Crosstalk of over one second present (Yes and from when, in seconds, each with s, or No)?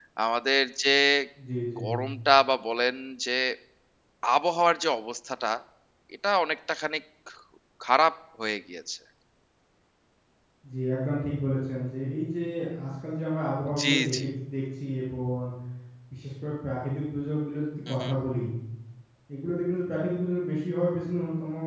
No